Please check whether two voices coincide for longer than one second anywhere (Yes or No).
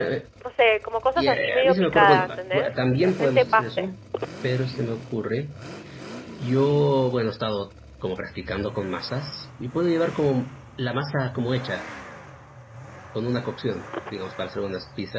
Yes